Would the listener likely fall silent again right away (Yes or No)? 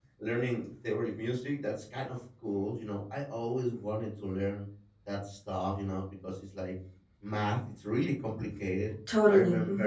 Yes